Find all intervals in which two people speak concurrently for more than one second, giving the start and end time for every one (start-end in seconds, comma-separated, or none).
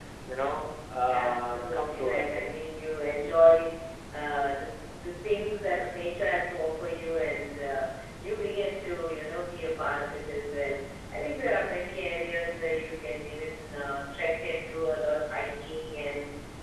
1.1-2.5